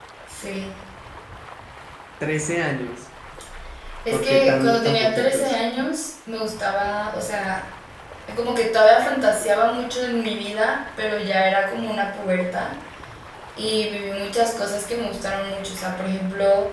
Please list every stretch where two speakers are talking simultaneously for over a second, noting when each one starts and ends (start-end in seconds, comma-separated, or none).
4.1-5.5